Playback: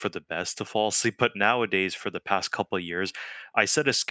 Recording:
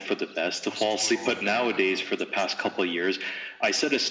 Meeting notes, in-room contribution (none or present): present